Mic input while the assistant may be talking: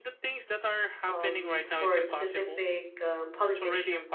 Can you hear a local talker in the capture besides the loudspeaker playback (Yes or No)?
Yes